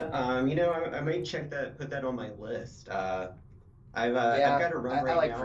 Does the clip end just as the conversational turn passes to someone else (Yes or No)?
Yes